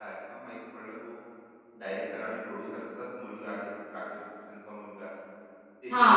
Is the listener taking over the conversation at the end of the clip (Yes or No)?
Yes